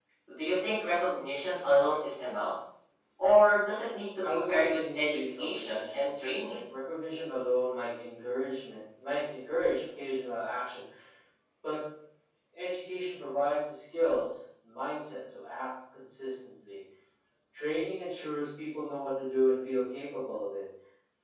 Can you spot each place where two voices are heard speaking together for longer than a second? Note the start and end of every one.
4.2-6.6

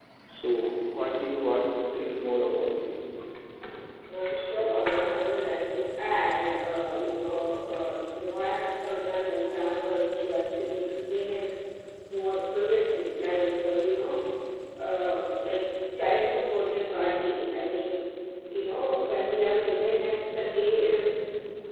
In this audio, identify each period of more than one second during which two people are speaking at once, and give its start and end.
none

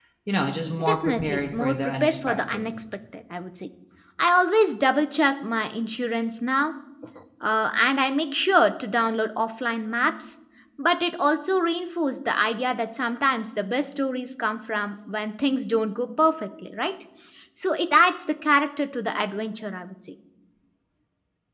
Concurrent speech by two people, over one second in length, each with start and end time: 0.8-2.6

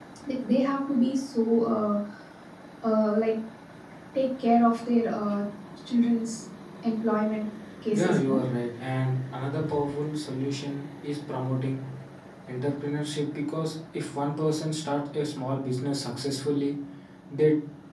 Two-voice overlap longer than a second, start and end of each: none

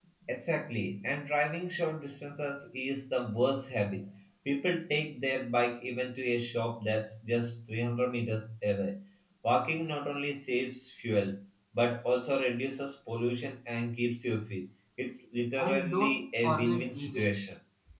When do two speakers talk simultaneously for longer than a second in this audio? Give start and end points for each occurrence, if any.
15.6-17.4

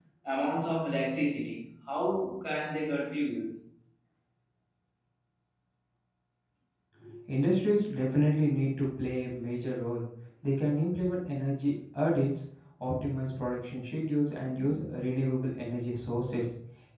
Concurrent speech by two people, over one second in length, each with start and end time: none

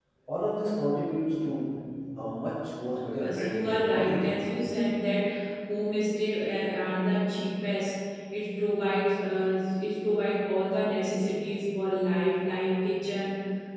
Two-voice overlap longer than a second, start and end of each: 3.2-4.4

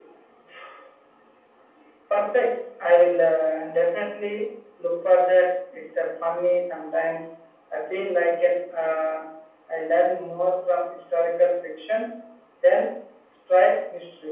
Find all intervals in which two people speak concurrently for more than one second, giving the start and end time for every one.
none

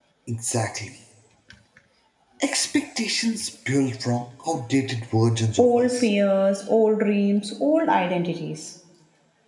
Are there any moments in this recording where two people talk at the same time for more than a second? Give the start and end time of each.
none

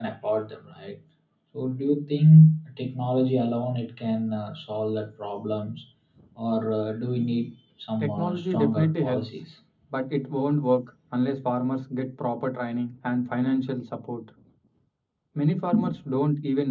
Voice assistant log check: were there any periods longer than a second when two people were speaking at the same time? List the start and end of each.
8.0-9.4

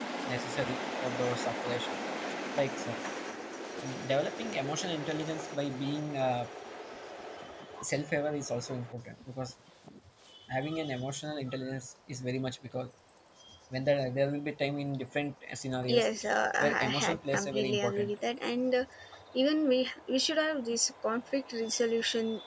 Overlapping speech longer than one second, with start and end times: 16.6-18.1

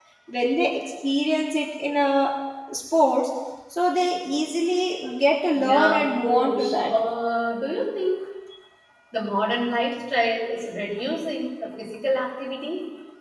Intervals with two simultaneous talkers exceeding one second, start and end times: 5.6-6.9

